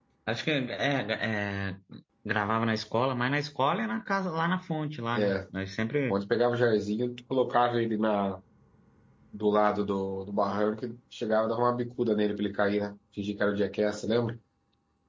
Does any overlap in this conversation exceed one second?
No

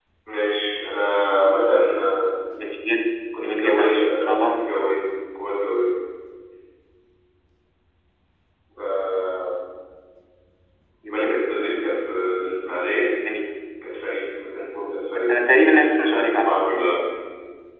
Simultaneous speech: Yes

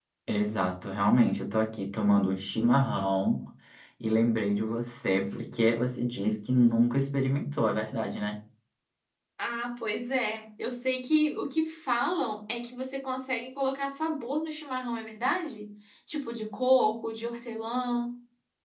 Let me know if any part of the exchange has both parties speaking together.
No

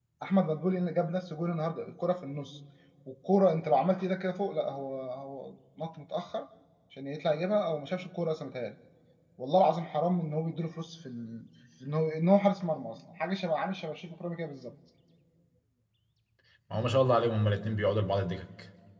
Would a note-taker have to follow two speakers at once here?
No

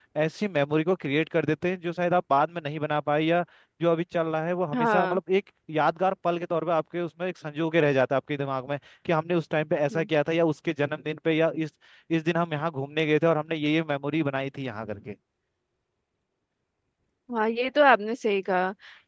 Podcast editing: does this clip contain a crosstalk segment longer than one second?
No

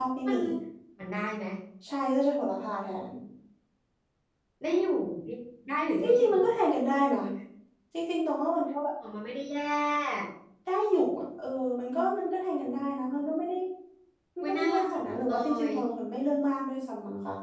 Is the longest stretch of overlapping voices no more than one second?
No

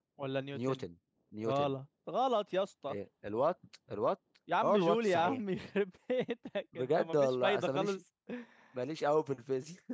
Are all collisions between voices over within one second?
No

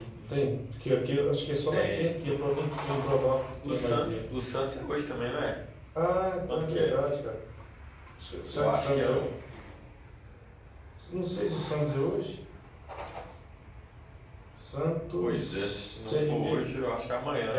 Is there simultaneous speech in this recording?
Yes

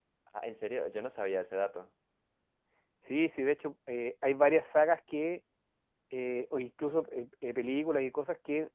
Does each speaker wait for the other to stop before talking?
Yes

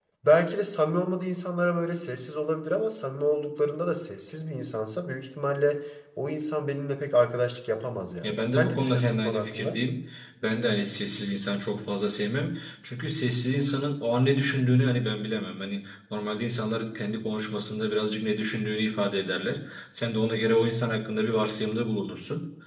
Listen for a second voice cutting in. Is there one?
Yes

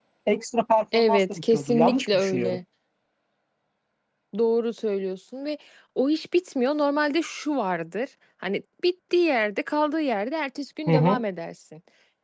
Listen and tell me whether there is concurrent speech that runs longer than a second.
Yes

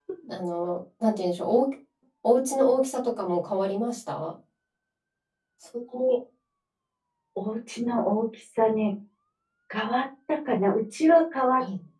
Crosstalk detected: No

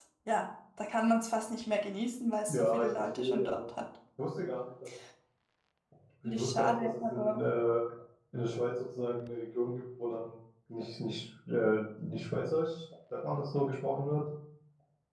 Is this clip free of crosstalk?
No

